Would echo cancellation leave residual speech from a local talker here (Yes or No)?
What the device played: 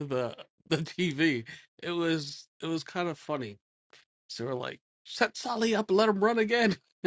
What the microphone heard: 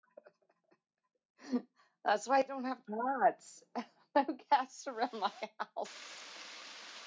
Yes